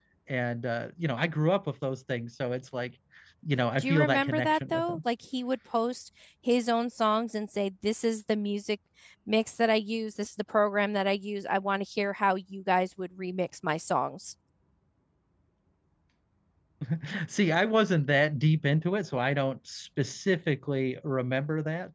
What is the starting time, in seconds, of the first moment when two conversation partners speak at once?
3.8 s

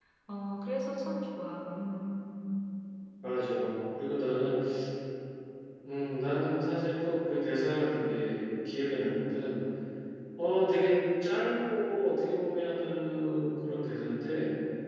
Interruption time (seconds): none

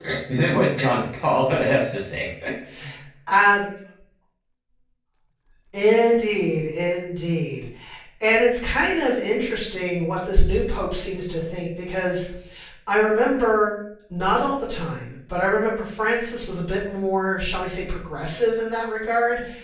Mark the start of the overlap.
none

